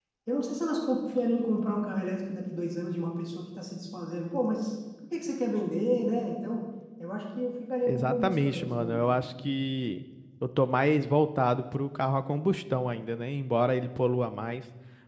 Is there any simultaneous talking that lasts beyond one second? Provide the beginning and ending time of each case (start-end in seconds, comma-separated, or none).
7.9-9.2